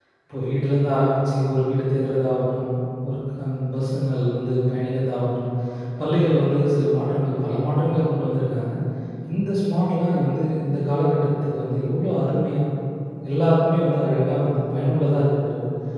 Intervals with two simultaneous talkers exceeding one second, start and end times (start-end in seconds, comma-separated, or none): none